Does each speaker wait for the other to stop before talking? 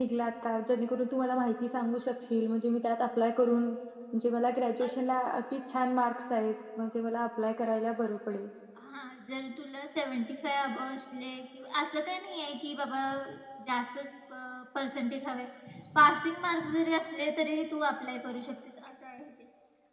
Yes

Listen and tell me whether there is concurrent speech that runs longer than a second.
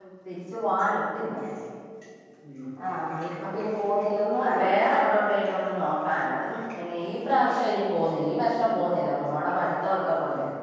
No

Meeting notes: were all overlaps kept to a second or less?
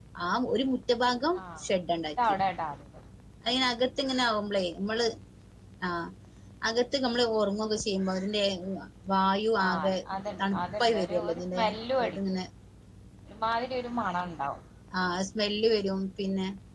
No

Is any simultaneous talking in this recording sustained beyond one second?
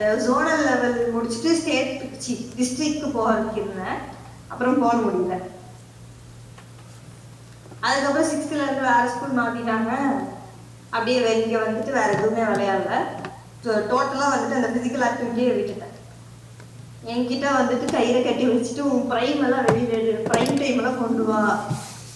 No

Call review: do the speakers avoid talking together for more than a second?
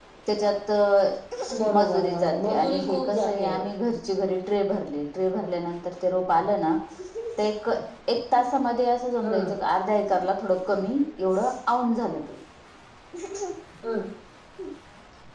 No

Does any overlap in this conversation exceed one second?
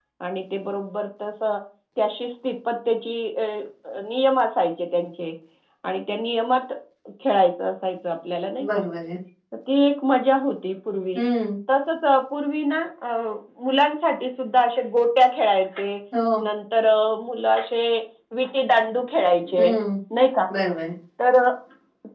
No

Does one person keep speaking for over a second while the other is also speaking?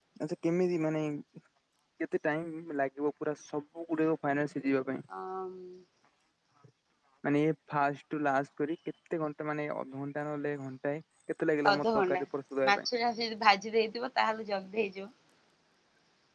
No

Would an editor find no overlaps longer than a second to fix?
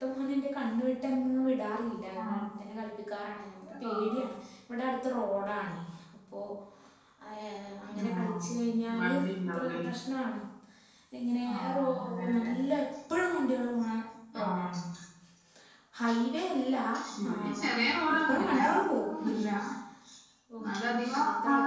No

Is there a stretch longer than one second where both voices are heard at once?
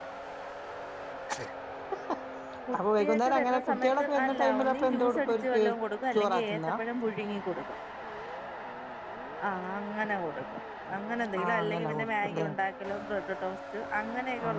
Yes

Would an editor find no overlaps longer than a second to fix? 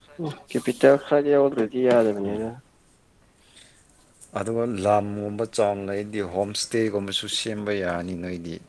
Yes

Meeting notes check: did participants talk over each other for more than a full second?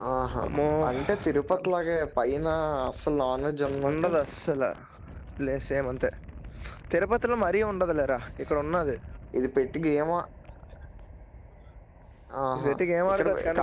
No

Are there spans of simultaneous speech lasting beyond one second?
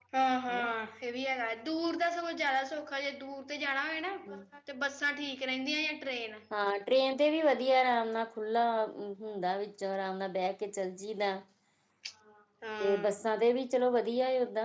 No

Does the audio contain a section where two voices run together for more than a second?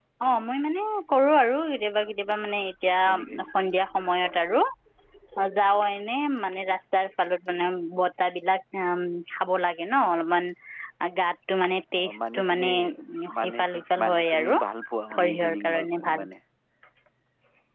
Yes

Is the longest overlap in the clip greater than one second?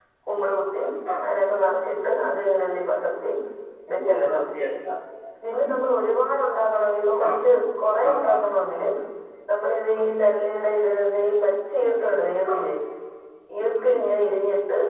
No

